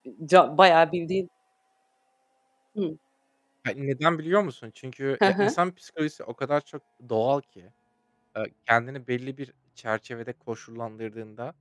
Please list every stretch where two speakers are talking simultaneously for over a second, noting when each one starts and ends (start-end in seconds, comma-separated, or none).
none